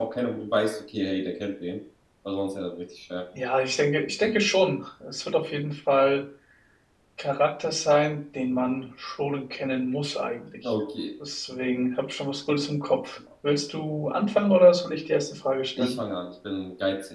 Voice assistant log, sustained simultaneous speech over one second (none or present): none